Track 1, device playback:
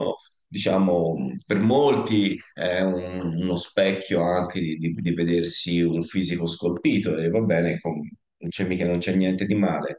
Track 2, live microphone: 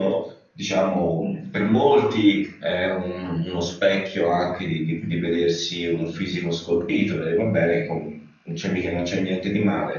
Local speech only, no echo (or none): none